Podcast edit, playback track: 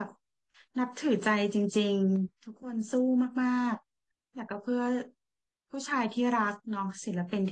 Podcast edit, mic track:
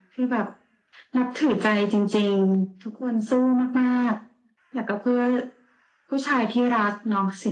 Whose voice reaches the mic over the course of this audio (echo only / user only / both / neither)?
echo only